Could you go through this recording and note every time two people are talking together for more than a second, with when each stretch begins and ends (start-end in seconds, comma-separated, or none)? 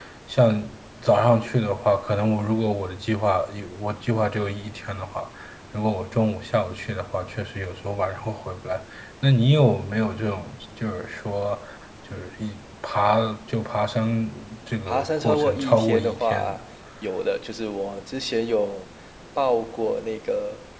14.9-16.6